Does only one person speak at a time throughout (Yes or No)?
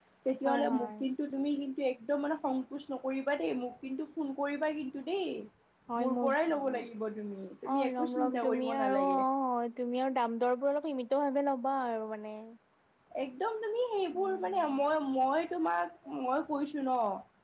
No